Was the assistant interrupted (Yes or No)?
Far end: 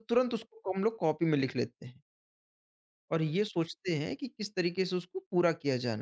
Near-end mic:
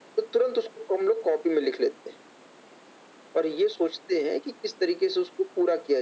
No